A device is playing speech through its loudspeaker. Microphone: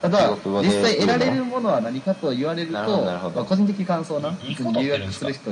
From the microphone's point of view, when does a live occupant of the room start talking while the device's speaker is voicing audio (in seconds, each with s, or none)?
4.2 s